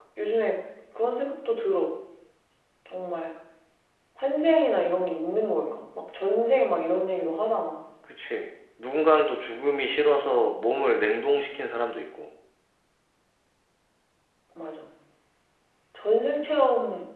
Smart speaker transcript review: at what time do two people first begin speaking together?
none

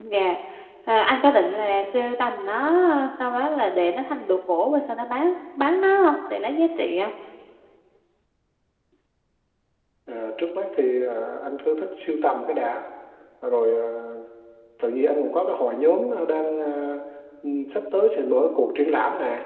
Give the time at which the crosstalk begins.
none

